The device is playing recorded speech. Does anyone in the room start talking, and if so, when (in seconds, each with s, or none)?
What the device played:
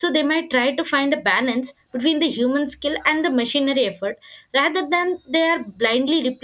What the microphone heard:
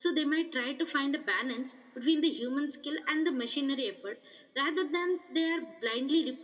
none